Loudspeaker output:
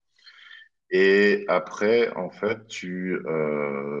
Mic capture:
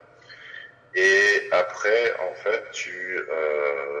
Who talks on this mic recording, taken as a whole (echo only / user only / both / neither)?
echo only